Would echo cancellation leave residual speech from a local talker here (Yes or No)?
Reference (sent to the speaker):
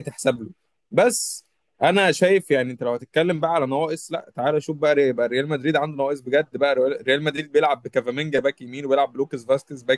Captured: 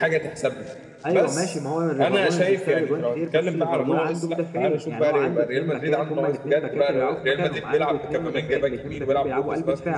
Yes